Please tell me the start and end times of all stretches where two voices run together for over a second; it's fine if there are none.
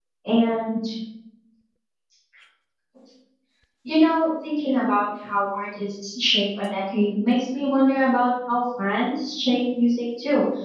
none

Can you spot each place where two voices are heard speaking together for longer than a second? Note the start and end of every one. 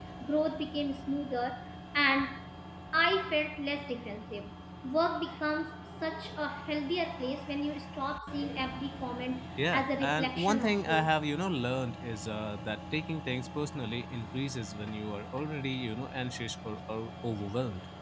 9.7-11.1

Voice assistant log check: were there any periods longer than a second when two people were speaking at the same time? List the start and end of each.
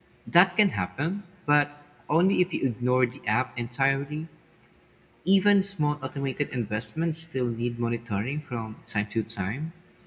none

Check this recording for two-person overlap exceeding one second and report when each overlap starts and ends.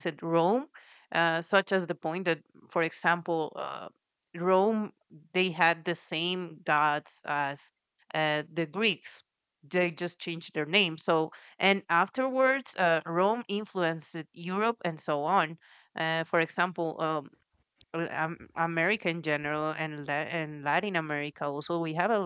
none

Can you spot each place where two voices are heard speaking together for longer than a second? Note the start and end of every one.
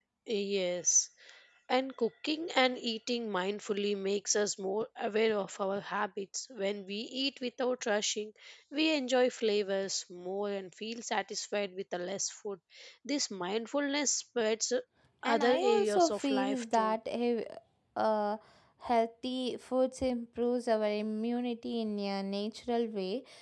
15.3-17.0

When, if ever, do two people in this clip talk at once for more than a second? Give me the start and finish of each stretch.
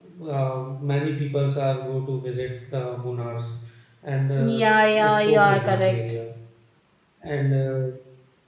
4.4-6.0

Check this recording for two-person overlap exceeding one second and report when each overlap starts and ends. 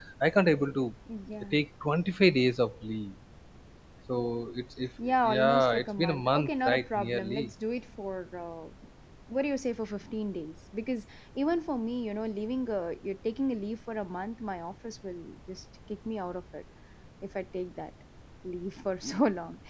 5.2-7.5

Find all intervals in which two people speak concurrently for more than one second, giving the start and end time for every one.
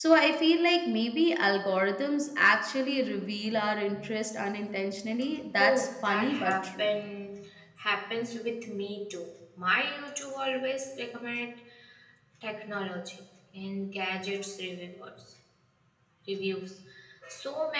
5.6-6.9

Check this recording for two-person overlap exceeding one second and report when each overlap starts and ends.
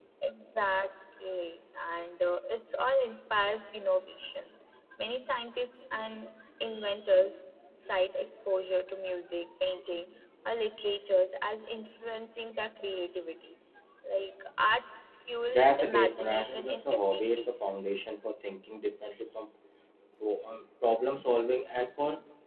15.5-17.5

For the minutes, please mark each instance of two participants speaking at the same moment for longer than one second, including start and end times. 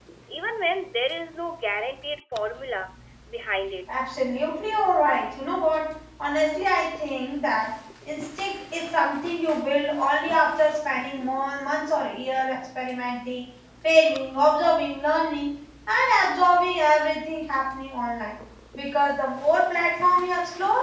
none

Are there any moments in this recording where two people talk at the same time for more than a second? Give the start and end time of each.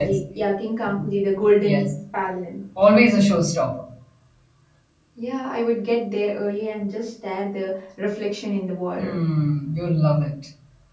none

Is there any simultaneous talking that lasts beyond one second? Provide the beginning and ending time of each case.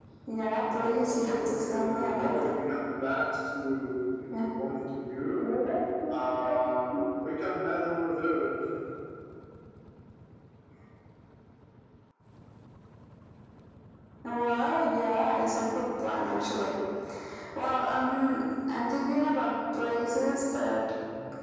0.6-2.5

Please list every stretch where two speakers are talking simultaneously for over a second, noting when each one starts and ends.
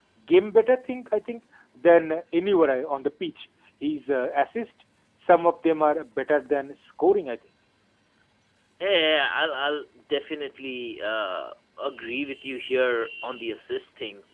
none

